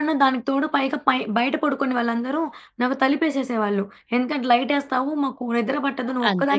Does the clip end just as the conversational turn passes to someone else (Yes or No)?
Yes